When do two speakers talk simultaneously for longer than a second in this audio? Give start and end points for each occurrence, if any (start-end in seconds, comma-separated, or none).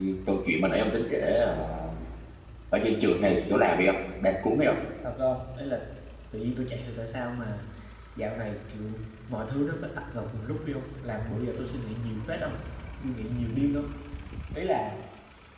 none